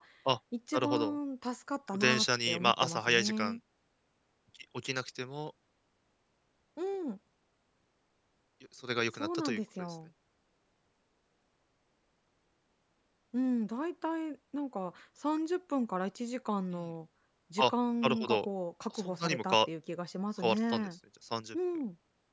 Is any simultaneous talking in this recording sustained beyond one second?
Yes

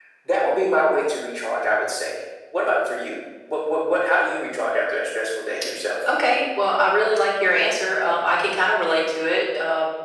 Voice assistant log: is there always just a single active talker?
Yes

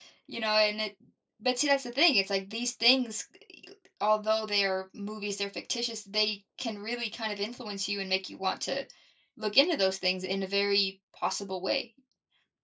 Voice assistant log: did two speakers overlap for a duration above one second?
No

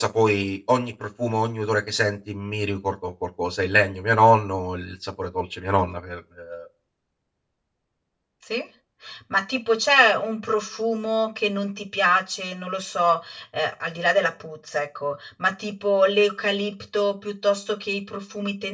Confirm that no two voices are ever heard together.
Yes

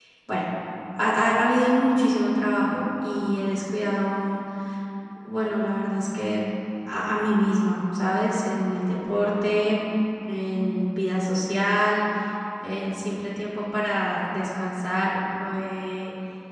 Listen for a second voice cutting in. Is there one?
No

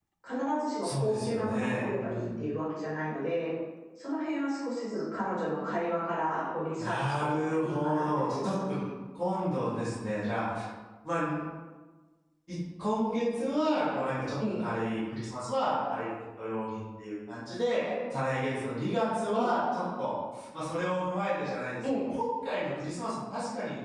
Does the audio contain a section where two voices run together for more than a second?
Yes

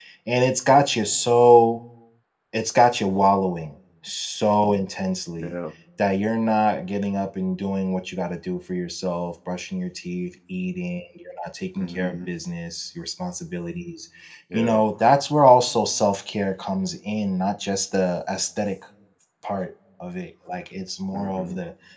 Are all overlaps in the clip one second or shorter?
Yes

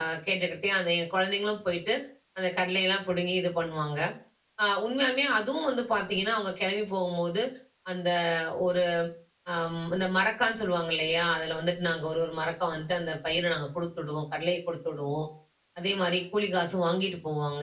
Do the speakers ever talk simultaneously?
No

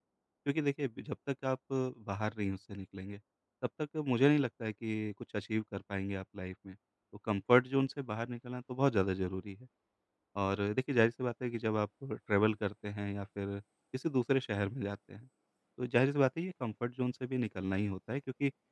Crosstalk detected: No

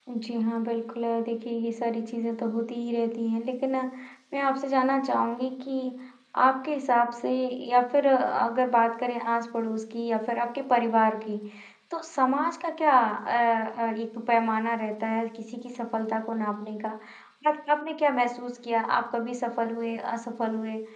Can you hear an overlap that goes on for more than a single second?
No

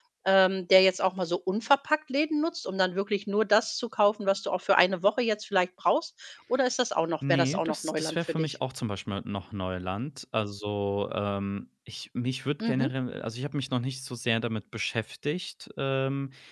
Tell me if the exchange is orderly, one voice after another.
No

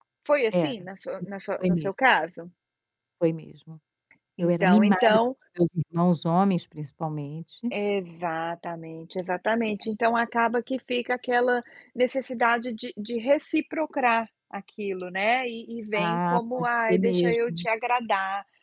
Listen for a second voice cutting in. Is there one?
Yes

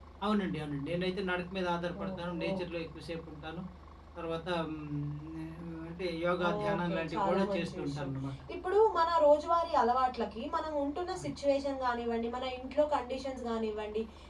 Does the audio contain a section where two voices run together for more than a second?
Yes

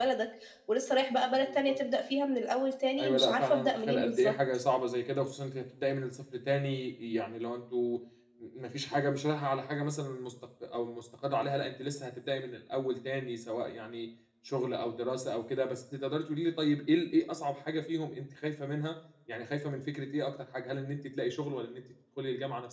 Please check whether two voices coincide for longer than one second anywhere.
Yes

